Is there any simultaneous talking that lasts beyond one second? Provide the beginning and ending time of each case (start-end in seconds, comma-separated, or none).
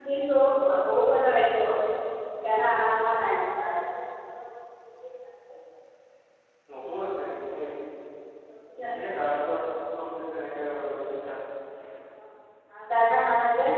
none